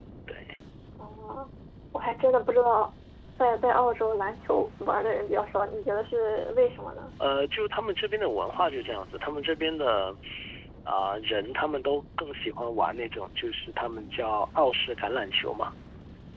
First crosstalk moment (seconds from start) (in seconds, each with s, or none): none